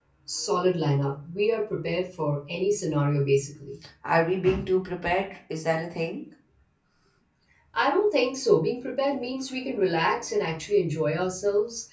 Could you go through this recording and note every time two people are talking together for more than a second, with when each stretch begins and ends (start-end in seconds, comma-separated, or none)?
none